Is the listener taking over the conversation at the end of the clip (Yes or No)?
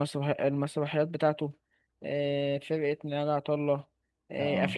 No